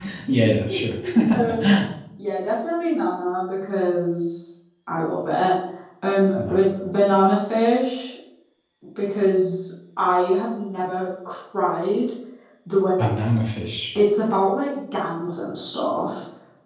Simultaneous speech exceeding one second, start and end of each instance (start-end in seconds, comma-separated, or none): none